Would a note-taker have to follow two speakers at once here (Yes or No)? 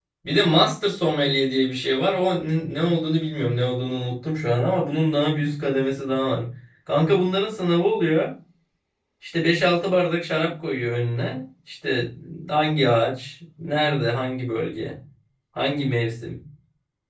No